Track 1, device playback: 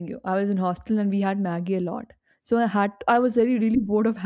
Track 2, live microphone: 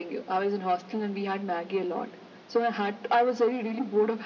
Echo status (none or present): present